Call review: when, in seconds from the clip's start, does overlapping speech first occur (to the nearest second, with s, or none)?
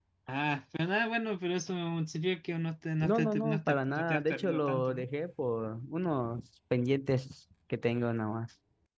3 s